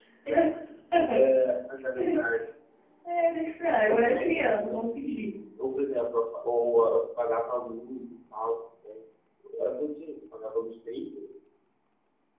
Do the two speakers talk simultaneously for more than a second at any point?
Yes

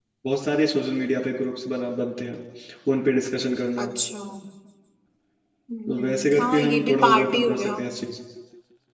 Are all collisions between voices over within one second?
No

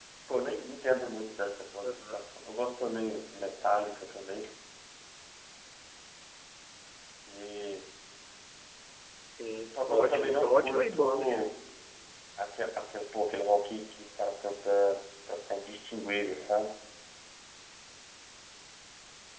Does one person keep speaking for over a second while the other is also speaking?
Yes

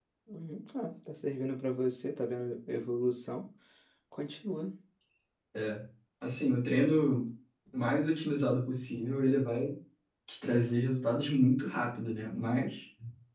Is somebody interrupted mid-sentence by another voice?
No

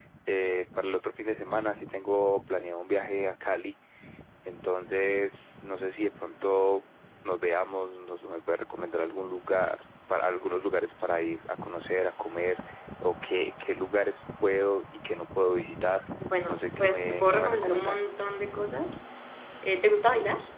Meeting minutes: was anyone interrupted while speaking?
Yes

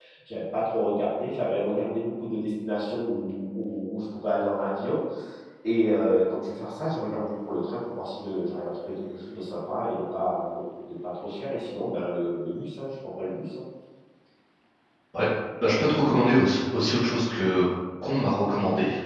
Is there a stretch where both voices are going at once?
No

